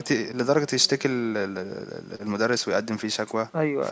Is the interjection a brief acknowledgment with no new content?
Yes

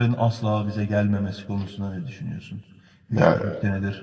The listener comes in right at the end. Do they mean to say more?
No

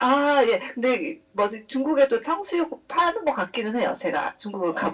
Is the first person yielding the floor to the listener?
Yes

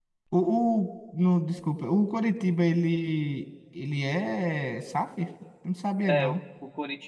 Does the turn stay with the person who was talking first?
No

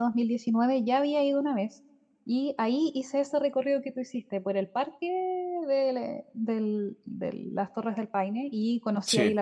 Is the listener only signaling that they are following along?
Yes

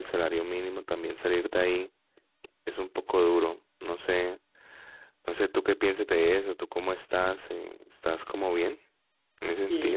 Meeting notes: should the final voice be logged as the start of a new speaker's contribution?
Yes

